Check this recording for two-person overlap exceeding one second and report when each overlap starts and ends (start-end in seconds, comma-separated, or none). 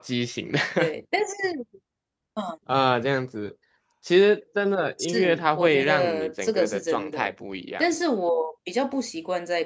5.0-7.3